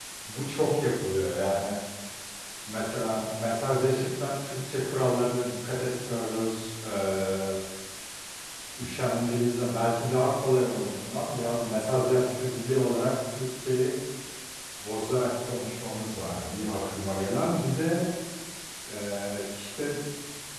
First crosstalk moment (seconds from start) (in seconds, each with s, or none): none